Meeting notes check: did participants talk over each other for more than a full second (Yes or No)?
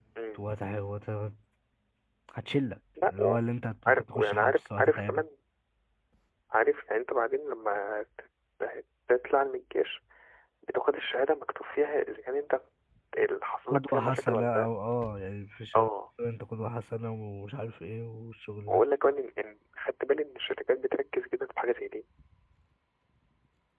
Yes